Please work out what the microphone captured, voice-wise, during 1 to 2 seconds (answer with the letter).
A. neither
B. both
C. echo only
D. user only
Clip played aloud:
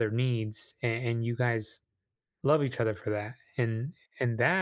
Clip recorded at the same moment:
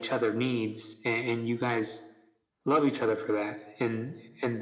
C